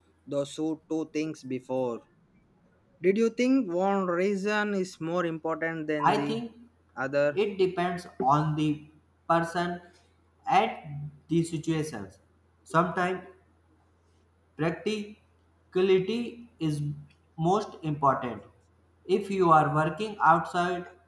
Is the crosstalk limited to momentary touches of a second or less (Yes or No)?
Yes